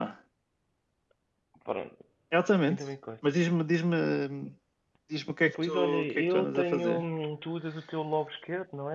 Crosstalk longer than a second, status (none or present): present